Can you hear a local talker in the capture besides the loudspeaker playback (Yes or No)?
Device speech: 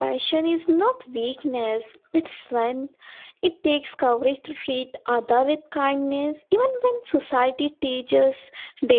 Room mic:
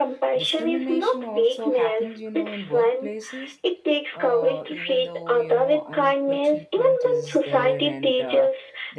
Yes